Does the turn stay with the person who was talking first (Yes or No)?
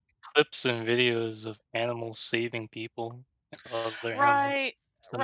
No